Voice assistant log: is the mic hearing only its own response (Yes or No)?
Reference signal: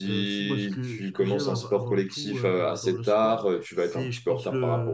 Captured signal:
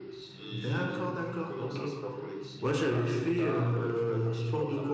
No